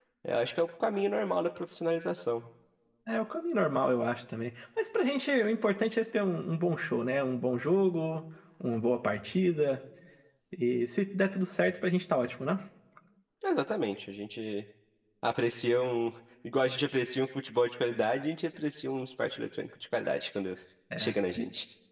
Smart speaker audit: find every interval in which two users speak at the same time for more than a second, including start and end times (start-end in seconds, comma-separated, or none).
none